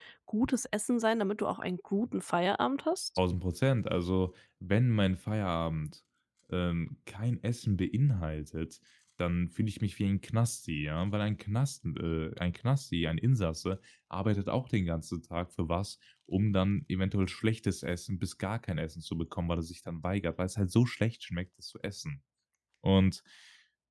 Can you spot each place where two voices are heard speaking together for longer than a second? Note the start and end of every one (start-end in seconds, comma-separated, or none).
none